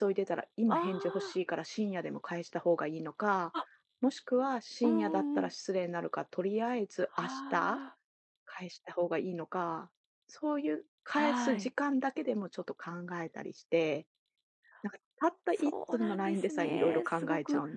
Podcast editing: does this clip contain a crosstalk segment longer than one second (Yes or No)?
Yes